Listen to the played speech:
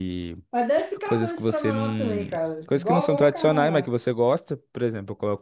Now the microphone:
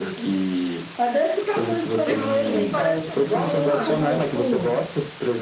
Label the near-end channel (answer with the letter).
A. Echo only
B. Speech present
B